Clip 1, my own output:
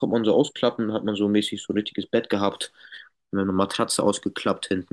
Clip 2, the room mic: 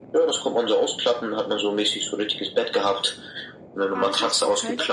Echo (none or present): present